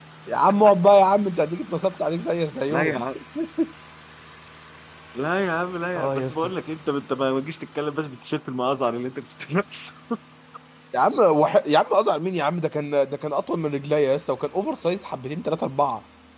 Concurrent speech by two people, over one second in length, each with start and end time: none

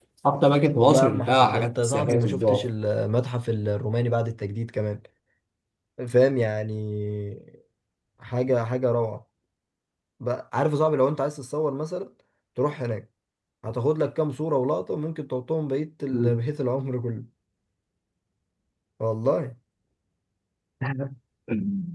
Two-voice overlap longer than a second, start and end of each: 0.7-2.7

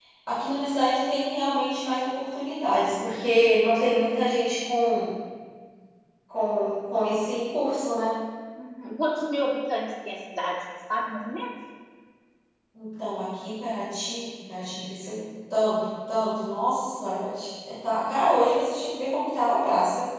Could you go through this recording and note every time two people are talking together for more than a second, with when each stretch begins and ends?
none

